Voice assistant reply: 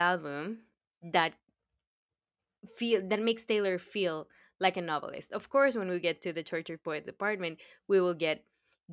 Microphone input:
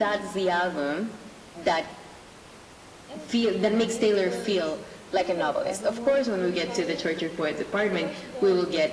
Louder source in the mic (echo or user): echo